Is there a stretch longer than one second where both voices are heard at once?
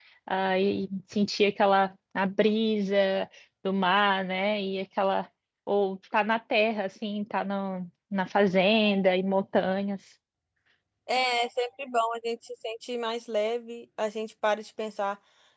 No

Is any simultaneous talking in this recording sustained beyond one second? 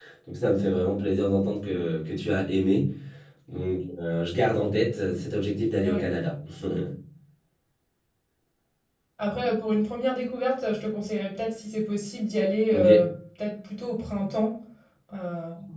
No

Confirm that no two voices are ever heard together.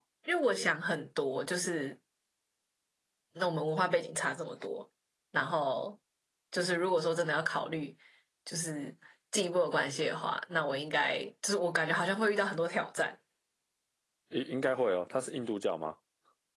Yes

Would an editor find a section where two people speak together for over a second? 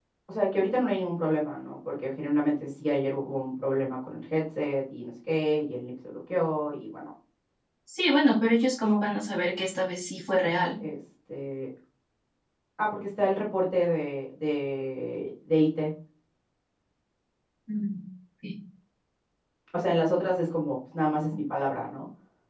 No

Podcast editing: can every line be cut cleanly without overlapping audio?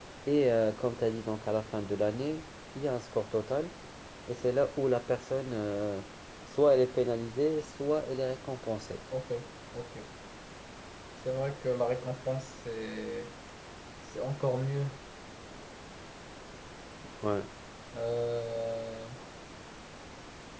Yes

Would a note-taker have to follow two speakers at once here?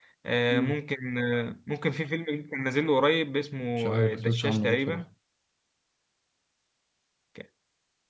Yes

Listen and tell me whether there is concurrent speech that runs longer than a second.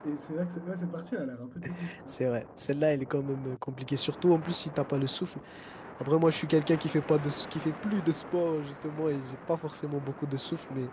No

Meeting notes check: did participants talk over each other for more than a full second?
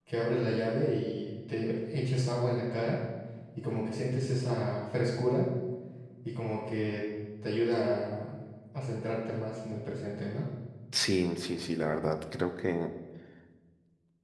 No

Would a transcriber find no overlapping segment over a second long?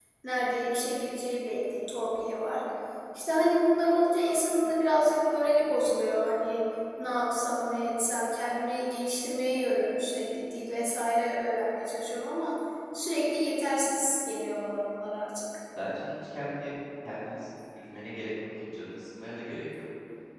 Yes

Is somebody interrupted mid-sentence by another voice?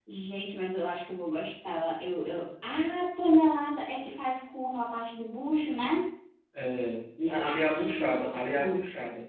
Yes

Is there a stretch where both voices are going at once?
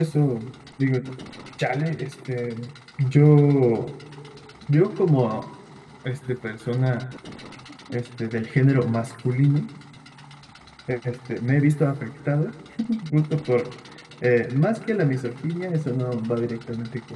No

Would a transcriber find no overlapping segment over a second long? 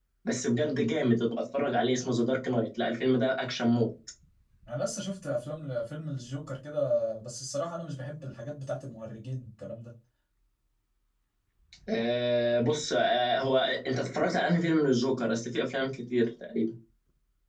Yes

